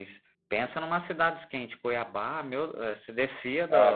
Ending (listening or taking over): taking over